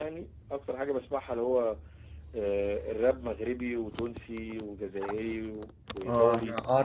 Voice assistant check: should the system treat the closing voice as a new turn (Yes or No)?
Yes